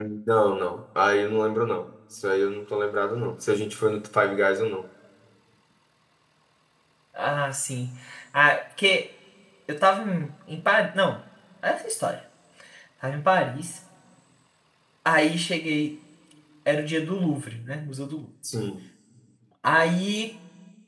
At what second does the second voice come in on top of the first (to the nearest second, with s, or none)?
none